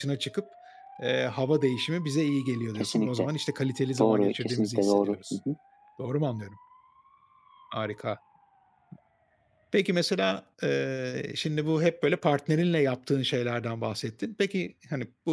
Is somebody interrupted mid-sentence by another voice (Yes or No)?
Yes